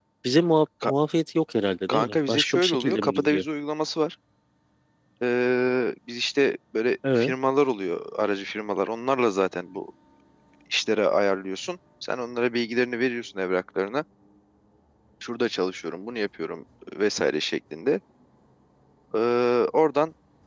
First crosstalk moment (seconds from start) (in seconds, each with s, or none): 1.9 s